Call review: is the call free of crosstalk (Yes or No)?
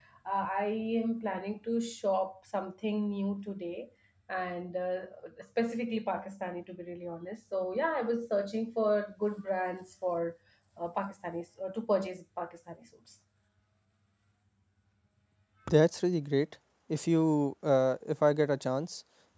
Yes